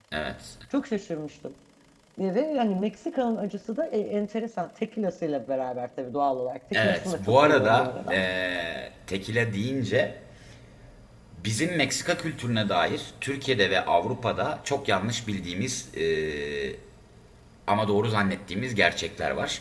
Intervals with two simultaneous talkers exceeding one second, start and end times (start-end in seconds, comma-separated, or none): 6.7-8.2